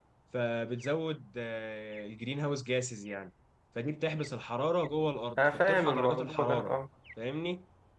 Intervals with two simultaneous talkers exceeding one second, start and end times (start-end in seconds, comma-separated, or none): 5.4-6.7